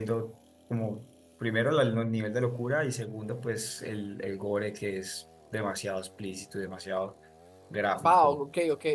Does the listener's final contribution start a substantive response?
Yes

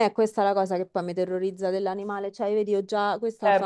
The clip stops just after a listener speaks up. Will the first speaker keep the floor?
Yes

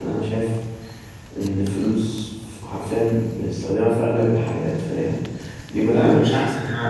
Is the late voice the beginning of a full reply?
Yes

